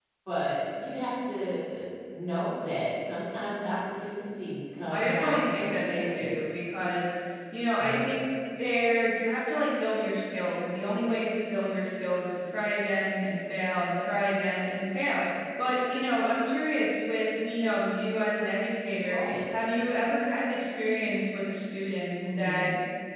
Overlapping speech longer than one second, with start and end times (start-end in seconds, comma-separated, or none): 4.9-6.4